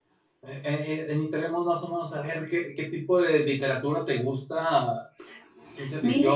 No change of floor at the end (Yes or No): Yes